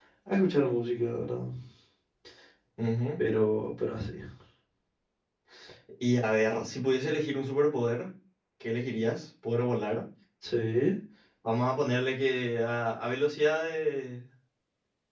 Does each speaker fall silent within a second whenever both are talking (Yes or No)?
Yes